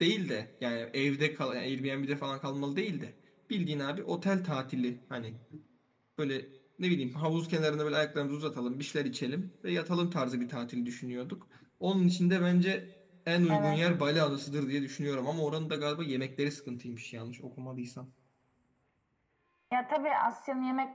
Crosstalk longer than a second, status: none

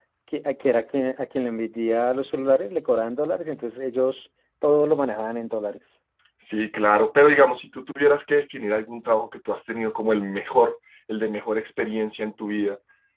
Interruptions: none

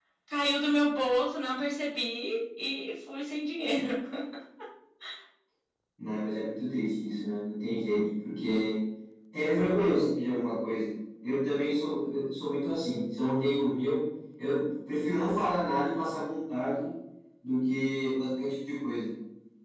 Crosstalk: none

